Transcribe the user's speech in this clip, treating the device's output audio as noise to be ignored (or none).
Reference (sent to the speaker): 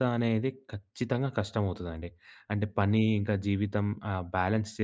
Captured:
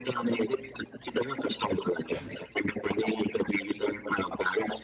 none